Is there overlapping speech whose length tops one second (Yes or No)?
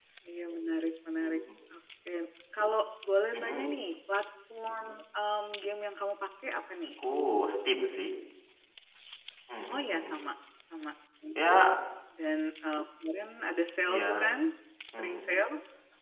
No